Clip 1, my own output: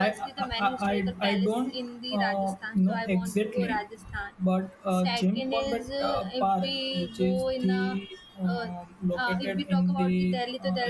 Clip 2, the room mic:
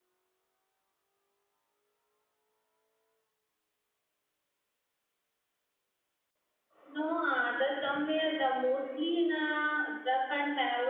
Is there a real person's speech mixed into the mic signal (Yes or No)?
Yes